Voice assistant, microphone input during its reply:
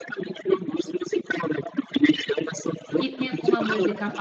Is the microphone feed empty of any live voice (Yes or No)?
No